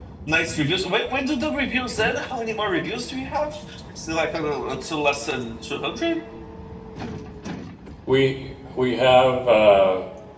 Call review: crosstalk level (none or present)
none